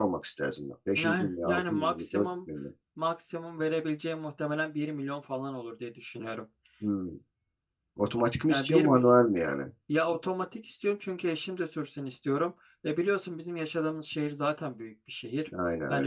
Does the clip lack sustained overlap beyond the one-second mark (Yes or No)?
No